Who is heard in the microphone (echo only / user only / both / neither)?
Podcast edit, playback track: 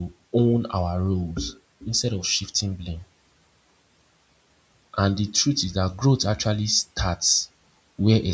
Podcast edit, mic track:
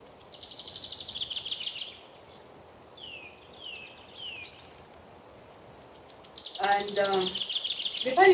user only